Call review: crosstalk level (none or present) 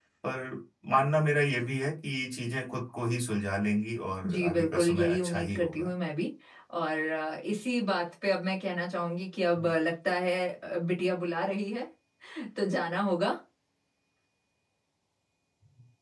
present